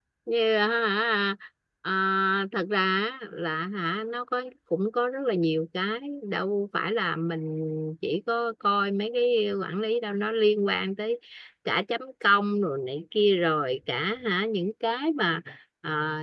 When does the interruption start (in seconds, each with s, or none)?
none